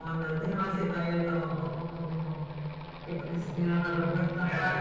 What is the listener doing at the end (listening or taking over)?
taking over